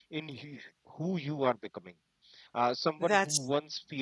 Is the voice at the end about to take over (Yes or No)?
No